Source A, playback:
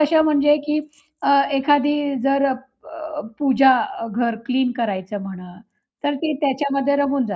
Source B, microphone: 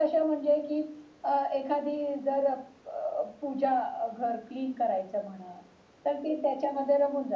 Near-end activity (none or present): none